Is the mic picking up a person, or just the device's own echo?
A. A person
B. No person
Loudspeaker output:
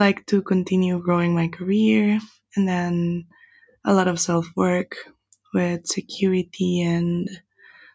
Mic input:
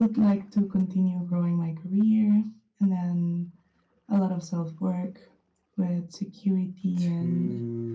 A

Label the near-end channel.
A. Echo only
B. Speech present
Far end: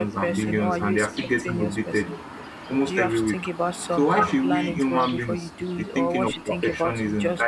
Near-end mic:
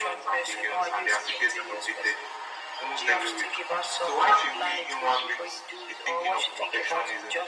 A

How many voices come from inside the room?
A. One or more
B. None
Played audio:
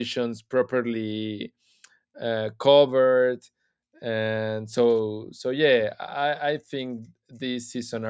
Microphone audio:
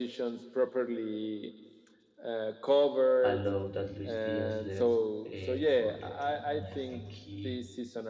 A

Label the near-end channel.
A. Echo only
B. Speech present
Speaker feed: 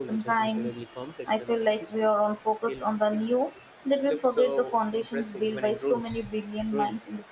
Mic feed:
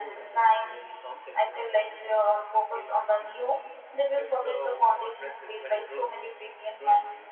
A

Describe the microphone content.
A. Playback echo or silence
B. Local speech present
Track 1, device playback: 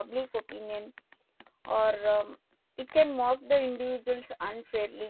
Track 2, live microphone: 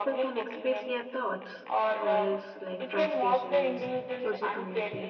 B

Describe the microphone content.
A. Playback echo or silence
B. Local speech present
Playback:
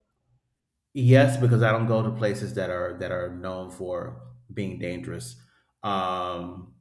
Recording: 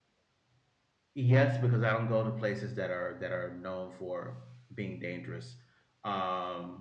A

